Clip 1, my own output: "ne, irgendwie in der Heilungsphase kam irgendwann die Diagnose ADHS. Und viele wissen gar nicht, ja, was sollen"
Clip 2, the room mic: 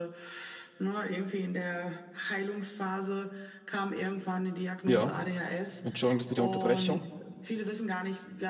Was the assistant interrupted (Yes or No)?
Yes